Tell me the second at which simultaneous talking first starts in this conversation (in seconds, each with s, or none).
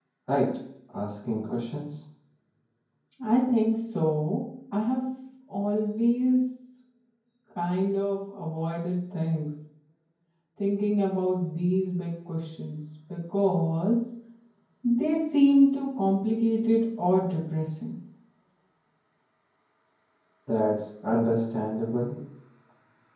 none